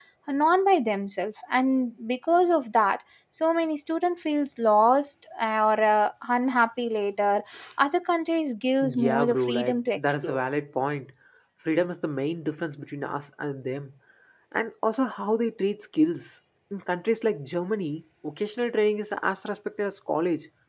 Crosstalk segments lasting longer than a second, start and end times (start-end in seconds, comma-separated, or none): 8.8-10.4